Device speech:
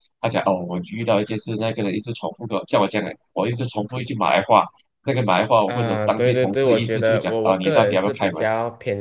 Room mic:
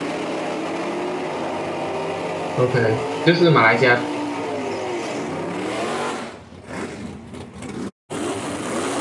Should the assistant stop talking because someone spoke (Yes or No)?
Yes